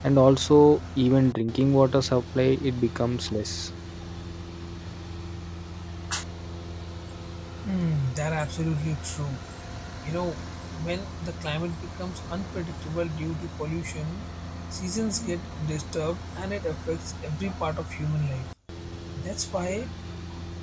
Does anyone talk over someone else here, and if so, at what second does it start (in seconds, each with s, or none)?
none